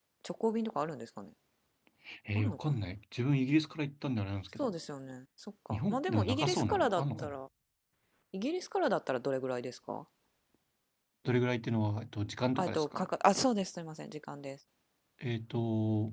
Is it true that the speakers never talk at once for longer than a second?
No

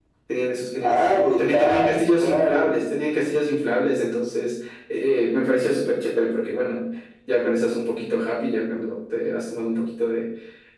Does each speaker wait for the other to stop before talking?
No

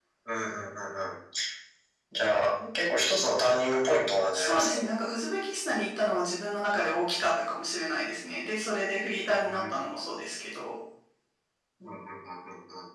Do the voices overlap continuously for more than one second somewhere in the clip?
No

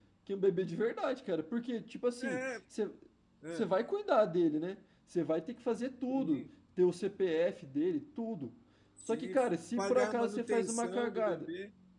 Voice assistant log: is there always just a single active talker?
No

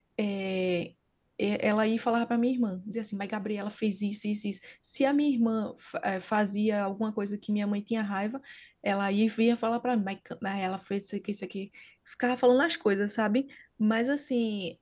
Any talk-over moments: No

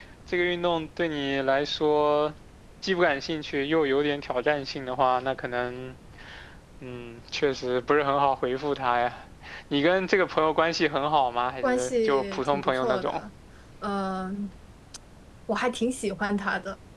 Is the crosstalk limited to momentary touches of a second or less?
No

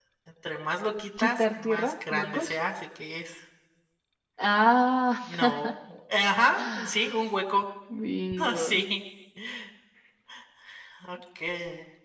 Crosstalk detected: Yes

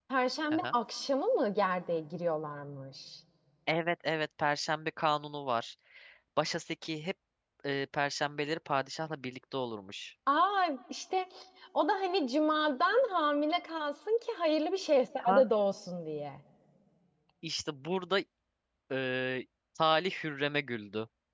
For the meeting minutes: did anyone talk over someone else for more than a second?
No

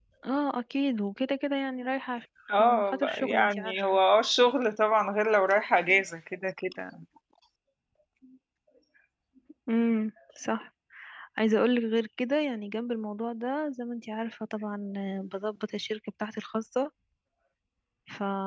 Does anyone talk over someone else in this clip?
Yes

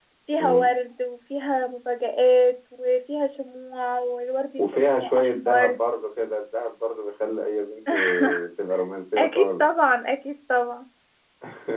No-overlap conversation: No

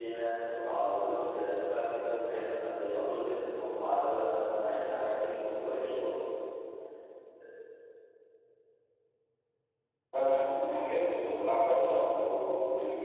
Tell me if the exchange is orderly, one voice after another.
Yes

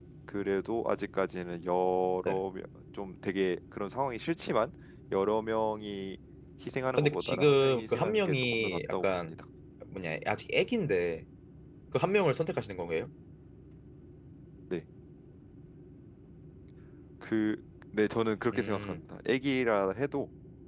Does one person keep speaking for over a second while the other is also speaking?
Yes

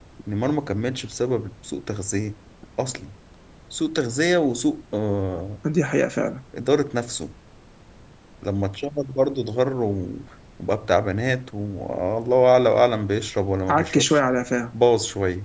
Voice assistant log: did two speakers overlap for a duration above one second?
No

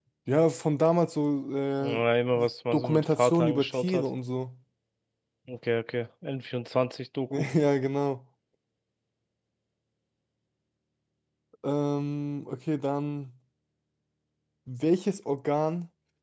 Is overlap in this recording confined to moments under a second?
No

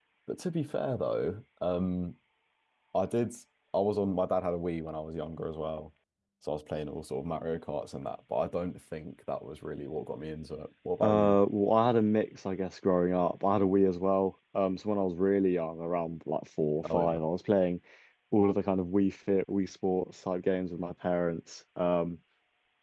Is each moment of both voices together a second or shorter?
Yes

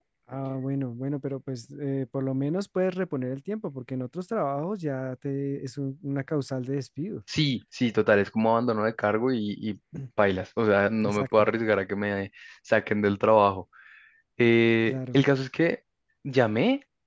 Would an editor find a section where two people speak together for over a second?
No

